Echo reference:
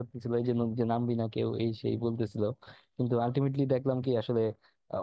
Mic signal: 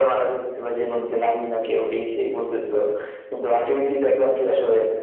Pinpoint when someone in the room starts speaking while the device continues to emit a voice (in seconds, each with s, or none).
none